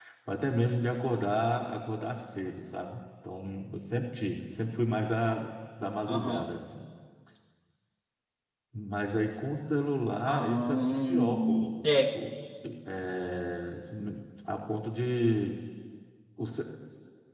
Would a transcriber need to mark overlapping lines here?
Yes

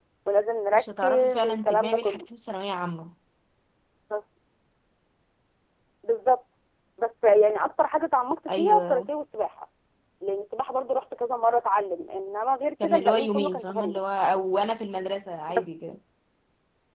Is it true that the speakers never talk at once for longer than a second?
No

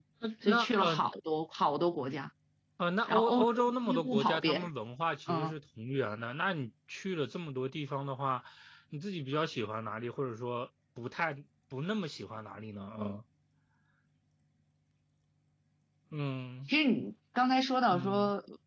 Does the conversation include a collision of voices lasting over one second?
Yes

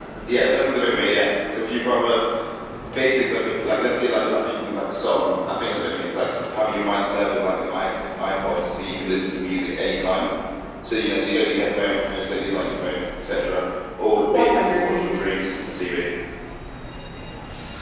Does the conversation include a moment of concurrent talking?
Yes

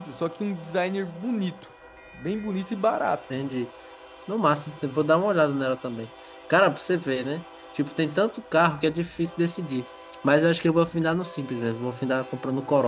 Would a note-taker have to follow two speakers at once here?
No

